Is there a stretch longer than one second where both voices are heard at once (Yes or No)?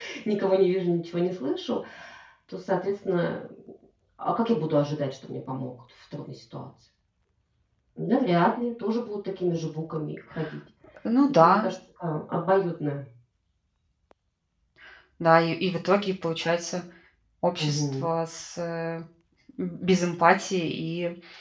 No